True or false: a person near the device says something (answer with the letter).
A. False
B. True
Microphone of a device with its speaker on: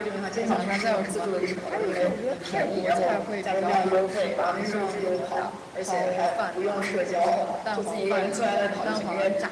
B